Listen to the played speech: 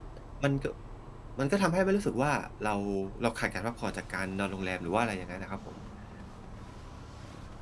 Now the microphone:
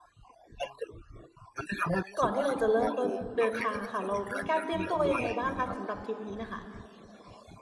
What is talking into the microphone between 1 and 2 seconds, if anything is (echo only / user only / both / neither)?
echo only